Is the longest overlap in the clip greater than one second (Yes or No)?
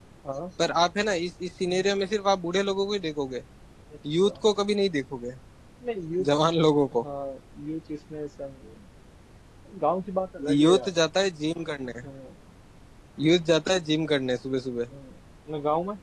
No